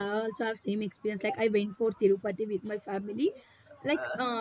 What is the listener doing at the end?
listening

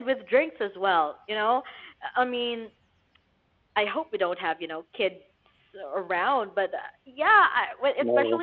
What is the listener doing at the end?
listening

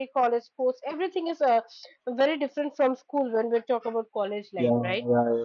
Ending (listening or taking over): taking over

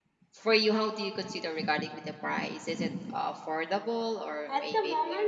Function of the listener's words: taking over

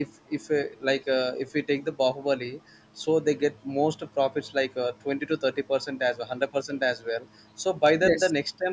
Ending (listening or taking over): listening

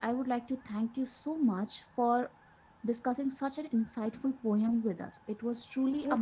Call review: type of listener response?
taking over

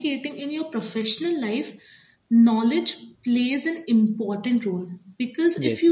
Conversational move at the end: listening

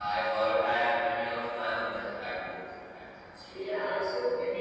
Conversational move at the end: taking over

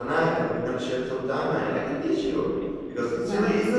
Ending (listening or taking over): listening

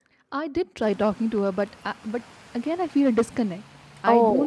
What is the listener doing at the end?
listening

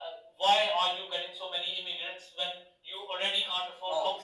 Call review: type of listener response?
listening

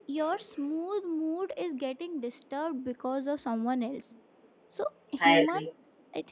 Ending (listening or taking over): listening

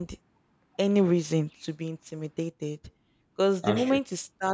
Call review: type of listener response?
listening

